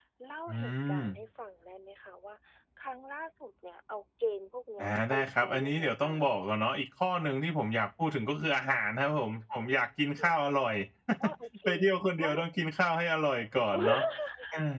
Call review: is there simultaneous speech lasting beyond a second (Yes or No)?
Yes